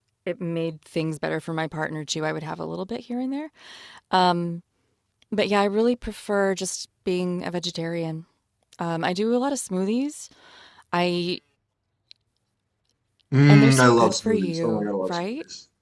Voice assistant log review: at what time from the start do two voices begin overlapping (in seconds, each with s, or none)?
13.5 s